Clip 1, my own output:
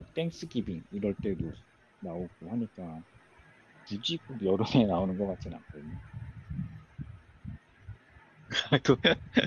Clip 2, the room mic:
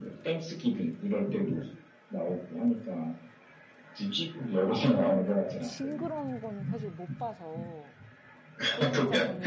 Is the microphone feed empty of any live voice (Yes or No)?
No